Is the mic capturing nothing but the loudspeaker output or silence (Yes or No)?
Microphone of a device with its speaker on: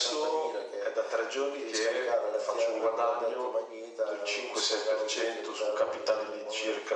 Yes